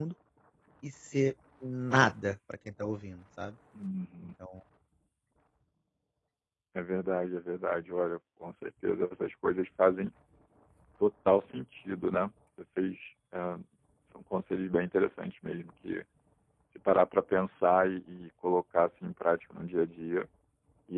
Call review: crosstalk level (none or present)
none